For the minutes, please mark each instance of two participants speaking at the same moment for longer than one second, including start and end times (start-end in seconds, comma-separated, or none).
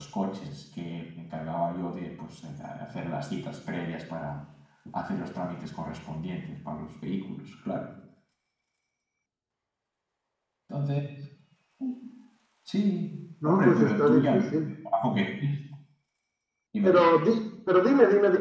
13.4-14.7